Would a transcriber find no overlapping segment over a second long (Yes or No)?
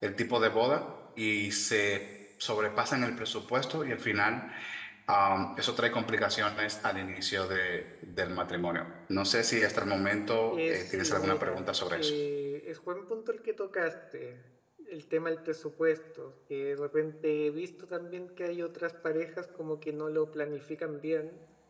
No